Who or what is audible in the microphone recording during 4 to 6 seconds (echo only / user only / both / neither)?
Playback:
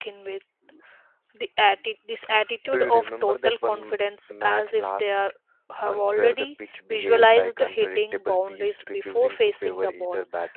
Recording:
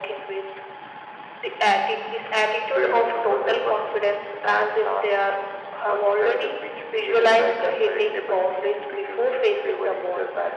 echo only